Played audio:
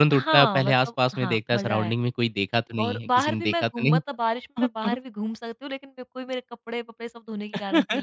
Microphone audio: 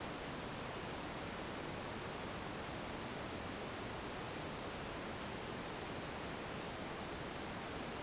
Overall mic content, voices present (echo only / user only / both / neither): neither